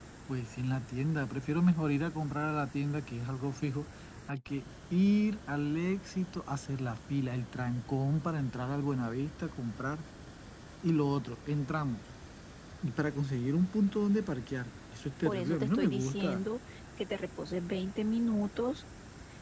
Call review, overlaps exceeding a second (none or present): present